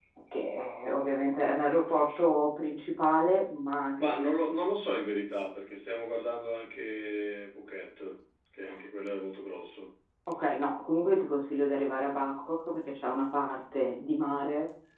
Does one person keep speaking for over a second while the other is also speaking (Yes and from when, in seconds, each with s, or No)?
No